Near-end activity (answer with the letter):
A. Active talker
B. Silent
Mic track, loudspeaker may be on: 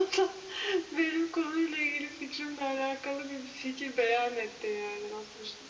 B